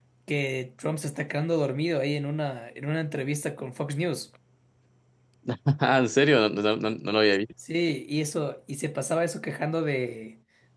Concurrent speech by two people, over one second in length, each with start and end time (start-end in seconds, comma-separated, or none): none